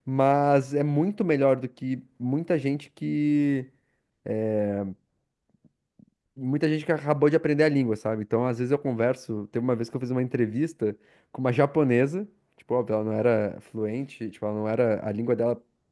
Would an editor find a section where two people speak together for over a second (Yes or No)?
No